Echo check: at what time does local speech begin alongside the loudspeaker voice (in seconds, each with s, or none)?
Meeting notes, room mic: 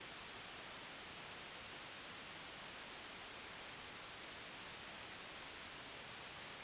none